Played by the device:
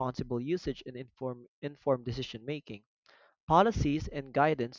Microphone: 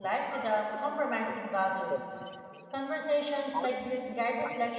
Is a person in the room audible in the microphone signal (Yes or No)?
Yes